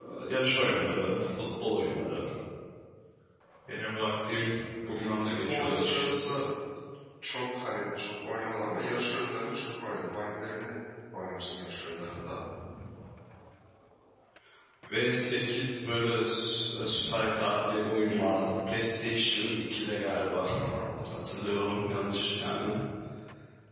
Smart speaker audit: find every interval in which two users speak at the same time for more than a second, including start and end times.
5.2-6.4

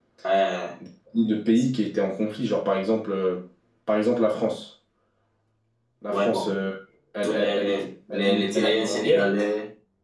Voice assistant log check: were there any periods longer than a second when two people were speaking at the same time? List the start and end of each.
7.2-9.3

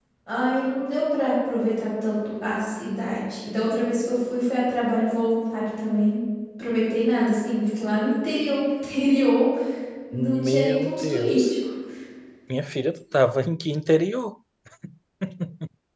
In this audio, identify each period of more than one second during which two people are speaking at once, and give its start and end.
10.1-11.5

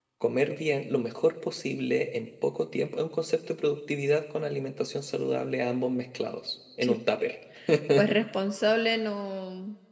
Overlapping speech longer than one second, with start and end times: none

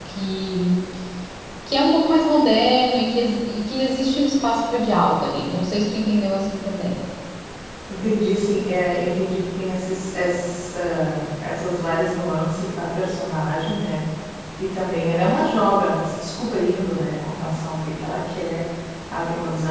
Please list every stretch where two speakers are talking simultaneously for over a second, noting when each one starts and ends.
none

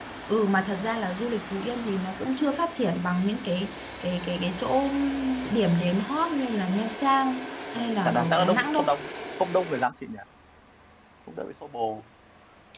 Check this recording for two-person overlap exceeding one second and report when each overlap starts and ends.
7.7-8.9

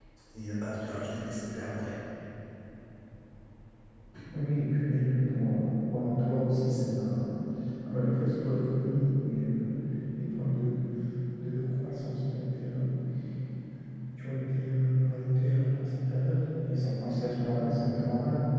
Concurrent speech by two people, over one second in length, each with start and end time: none

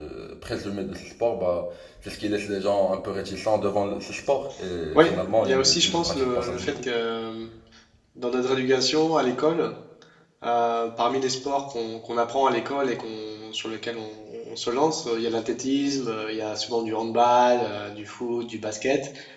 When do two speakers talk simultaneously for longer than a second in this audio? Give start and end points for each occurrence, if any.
4.9-6.8

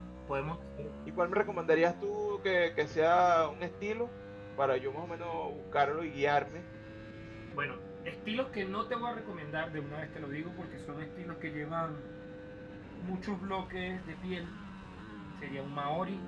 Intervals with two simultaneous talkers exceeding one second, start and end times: none

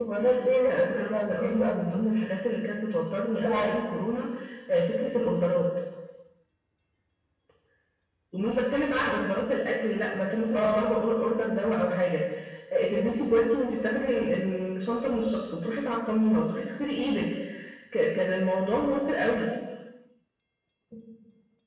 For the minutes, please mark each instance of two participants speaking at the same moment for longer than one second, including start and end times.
0.7-2.0

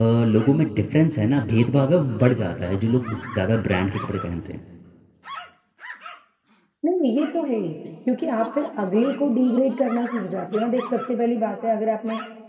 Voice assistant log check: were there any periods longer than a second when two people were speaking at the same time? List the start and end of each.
none

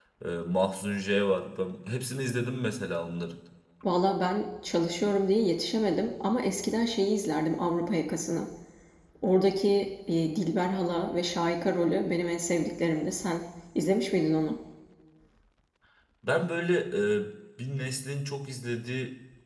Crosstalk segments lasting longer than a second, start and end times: none

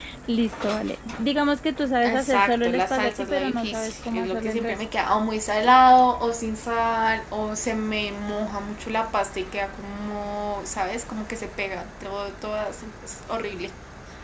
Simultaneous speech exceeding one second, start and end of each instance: 2.0-4.8

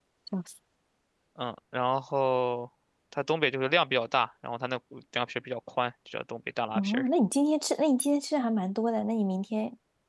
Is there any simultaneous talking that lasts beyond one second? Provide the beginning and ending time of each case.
none

